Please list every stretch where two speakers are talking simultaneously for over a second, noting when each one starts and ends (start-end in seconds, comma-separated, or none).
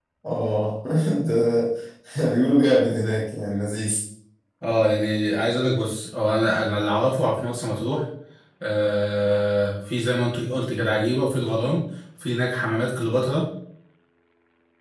none